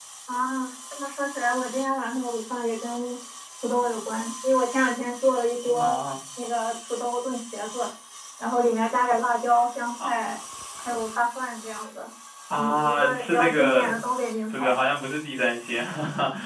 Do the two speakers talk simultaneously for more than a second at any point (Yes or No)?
Yes